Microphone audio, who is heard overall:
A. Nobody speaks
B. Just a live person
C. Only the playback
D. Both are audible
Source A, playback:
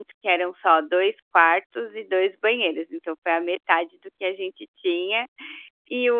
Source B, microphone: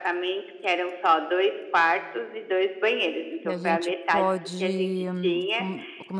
D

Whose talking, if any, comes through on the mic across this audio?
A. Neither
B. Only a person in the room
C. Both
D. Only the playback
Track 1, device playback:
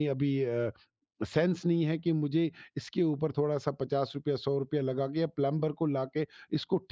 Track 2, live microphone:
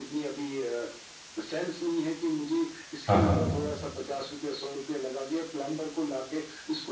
C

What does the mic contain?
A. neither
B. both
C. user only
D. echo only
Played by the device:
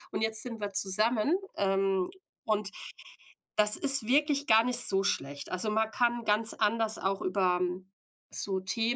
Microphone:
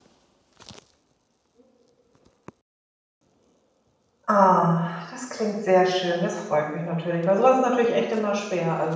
C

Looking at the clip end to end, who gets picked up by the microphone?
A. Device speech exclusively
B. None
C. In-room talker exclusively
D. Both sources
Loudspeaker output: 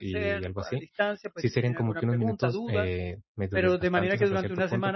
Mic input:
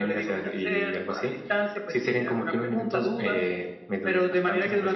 A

